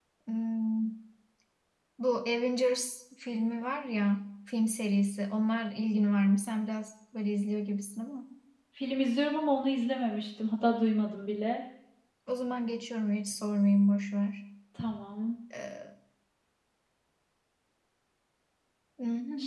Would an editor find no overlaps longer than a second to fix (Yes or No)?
Yes